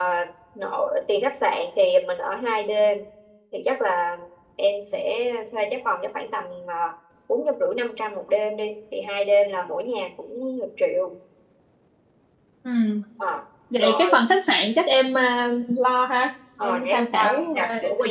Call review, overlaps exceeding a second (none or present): present